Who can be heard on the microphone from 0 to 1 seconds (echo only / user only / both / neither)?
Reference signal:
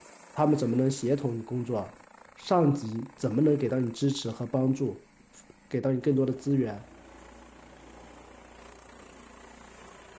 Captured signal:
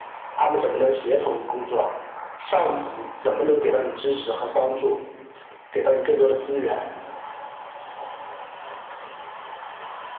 echo only